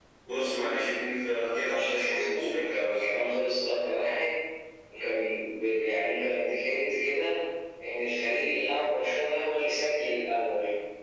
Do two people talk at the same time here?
Yes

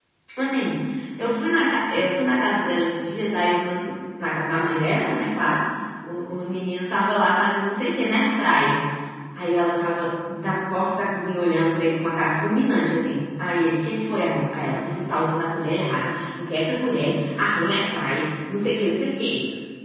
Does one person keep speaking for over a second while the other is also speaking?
No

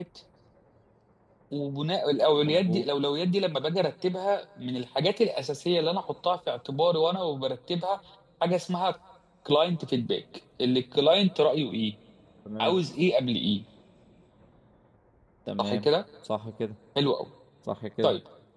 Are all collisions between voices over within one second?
Yes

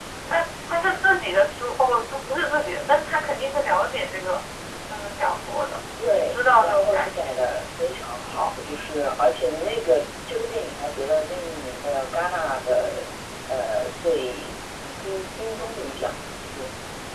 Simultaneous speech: Yes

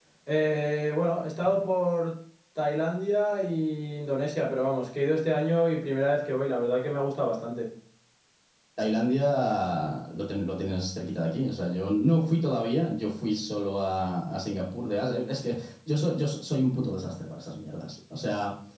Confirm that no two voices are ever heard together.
Yes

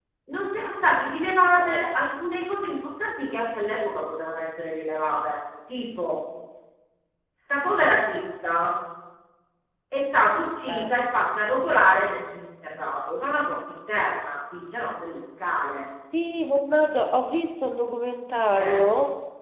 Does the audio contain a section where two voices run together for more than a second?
No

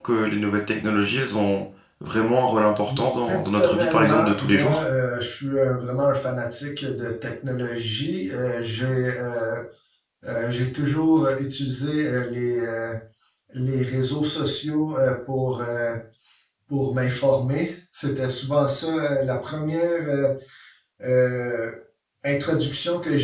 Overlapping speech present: Yes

